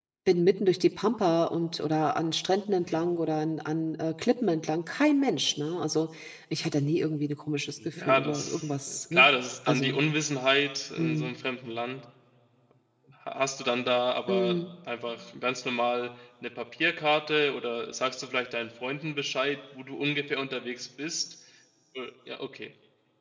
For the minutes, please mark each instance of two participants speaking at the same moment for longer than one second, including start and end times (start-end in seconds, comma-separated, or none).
8.0-9.3